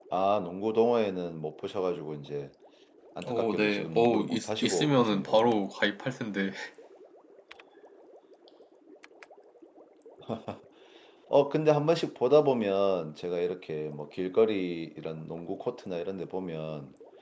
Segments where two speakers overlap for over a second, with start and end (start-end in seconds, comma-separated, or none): 3.2-5.6